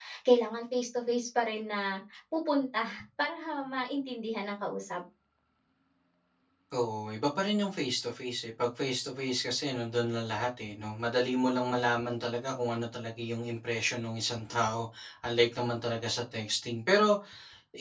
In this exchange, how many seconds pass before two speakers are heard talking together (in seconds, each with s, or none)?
none